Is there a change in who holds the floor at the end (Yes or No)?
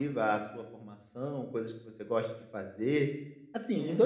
No